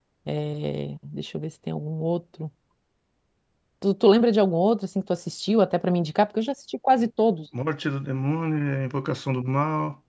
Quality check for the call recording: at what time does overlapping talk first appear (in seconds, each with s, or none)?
none